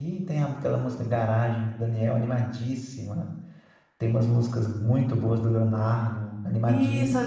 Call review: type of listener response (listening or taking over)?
taking over